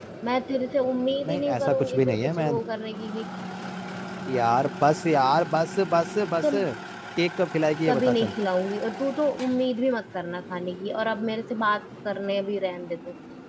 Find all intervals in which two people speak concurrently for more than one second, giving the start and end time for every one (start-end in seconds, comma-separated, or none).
1.2-2.5